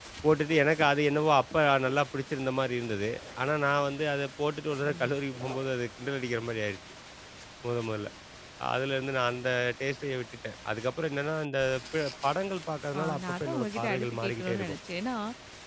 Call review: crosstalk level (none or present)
present